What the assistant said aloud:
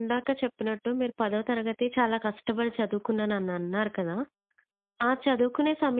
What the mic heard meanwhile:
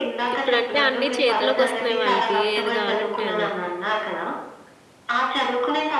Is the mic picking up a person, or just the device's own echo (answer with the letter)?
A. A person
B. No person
A